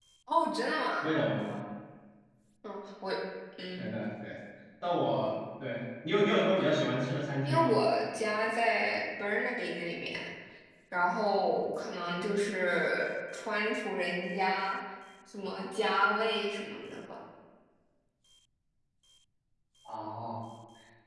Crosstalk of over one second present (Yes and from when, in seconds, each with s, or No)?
No